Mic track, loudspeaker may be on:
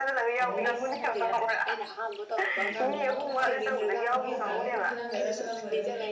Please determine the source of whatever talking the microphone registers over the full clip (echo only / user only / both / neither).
both